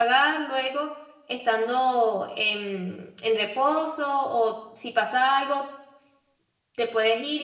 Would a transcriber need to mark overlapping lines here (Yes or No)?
No